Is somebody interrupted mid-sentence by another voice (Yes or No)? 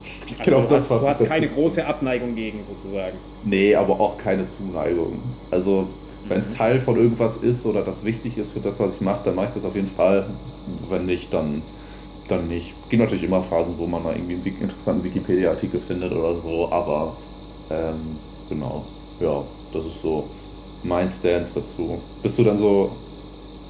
Yes